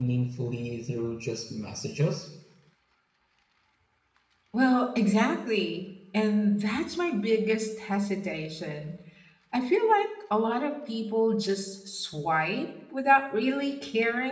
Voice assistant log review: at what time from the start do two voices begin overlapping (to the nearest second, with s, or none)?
none